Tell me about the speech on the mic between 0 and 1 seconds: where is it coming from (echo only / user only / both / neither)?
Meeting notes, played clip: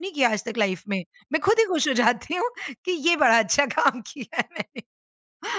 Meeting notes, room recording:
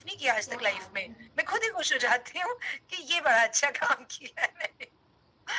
both